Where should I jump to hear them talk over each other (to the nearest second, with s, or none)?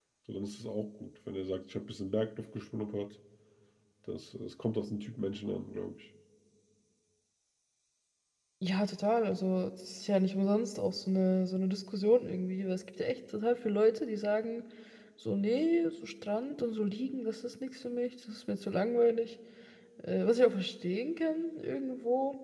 none